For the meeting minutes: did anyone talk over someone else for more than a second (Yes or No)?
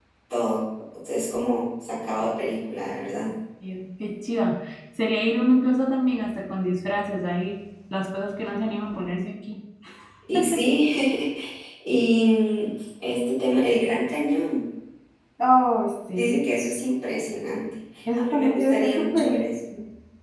Yes